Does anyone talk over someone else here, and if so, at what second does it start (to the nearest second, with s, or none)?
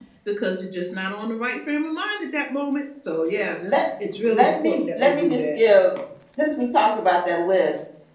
4 s